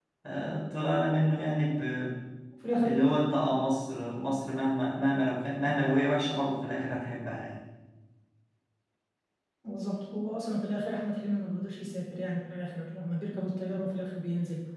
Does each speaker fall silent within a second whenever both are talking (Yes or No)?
Yes